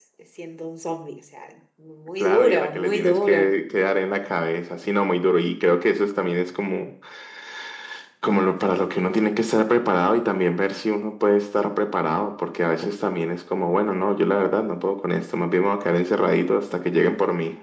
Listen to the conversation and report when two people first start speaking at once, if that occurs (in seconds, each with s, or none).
2.2 s